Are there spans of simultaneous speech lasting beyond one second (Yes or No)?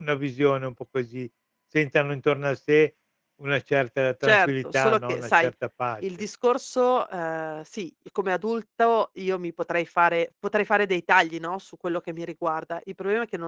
Yes